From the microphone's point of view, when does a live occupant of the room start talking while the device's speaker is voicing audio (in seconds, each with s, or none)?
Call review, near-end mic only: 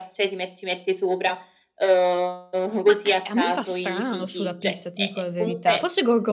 2.8 s